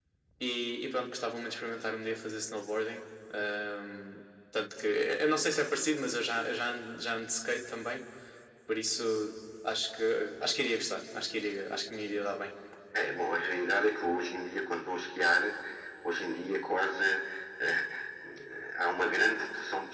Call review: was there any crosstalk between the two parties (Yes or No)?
No